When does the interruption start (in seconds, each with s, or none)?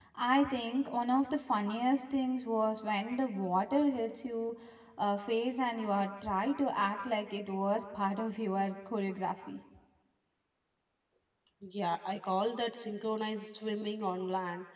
none